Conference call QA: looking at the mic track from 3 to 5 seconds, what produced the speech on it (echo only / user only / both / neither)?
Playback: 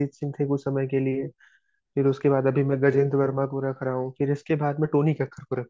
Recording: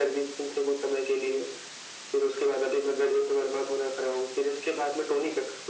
echo only